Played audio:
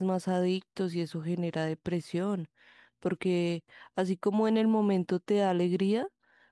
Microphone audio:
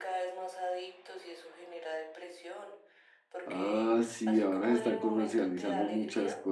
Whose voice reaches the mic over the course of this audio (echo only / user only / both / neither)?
both